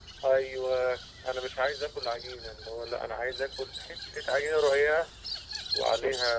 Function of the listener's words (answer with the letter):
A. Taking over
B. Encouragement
B